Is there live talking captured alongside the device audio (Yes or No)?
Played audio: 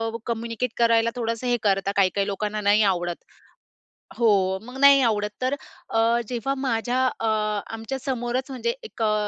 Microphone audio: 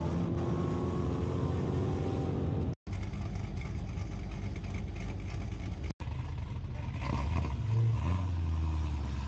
No